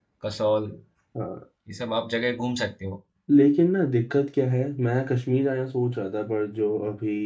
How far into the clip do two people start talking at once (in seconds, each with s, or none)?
none